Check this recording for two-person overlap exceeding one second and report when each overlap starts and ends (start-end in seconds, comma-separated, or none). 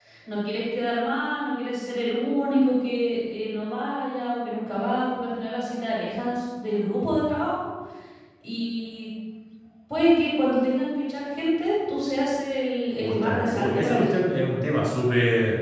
13.0-14.2